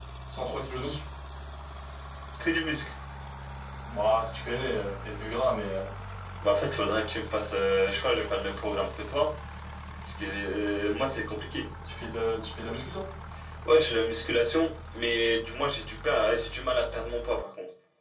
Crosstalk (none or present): none